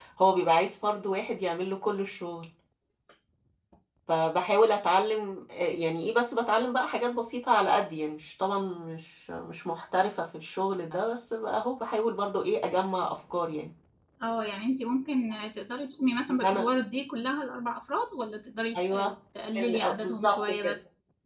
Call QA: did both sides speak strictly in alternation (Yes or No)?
No